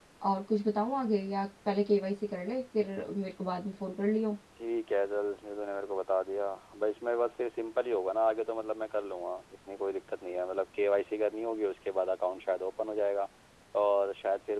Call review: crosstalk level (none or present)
none